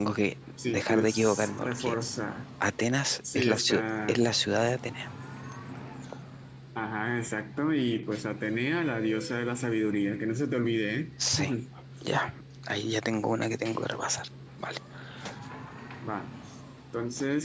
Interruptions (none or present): present